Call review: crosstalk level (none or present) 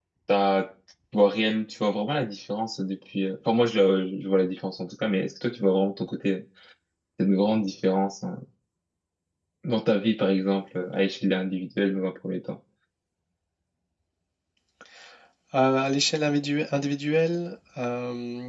none